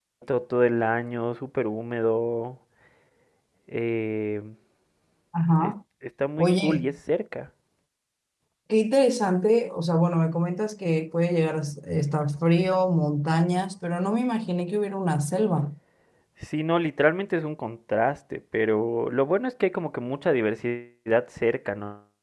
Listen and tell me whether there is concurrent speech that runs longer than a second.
No

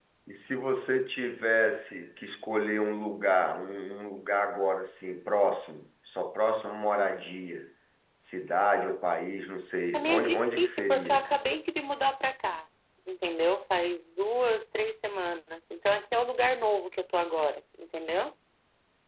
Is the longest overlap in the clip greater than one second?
Yes, from 9.9 s

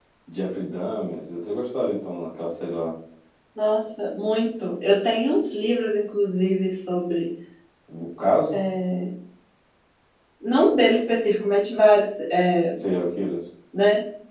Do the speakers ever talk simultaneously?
No

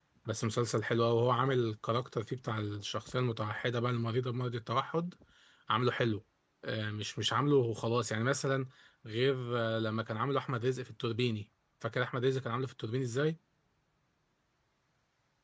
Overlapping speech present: No

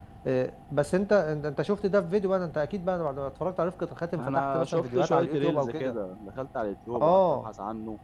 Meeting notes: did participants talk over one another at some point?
Yes, from 4.2 s

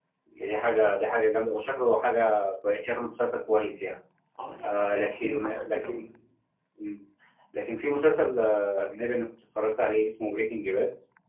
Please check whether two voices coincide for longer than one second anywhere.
Yes, from 4.6 s

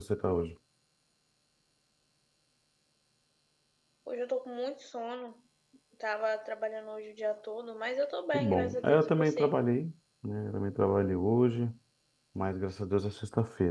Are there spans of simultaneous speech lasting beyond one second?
Yes, from 8.3 s

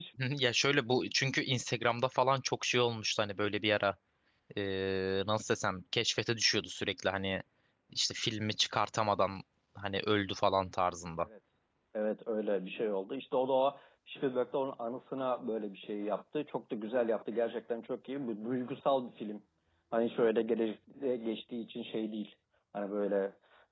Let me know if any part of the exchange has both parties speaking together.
No

